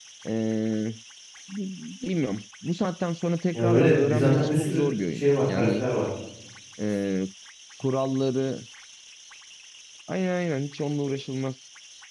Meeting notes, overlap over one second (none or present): present